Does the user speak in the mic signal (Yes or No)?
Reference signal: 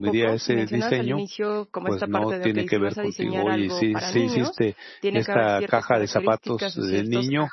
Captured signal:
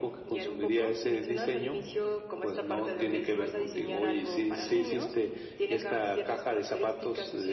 No